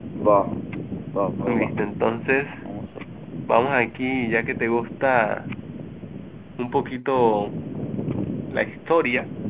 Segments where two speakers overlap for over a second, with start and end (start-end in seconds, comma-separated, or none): none